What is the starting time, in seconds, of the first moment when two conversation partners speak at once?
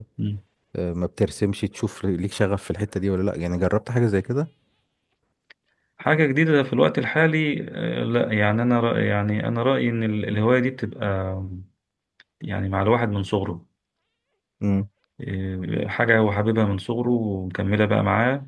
none

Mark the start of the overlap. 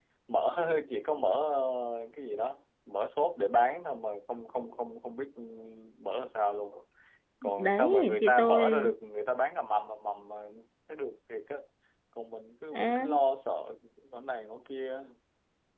7.6 s

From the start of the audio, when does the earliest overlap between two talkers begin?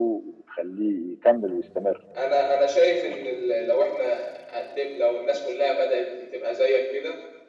none

